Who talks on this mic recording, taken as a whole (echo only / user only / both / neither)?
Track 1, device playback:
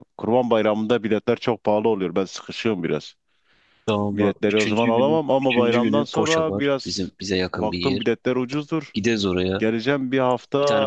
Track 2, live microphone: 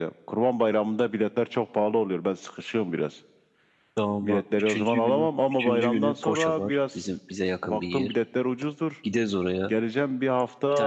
echo only